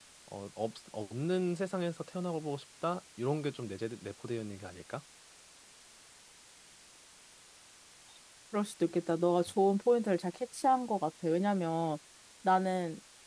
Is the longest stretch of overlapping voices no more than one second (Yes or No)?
Yes